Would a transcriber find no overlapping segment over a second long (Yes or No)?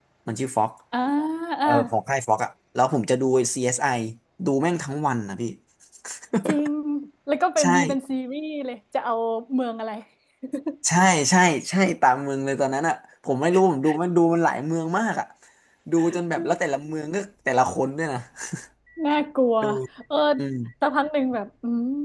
Yes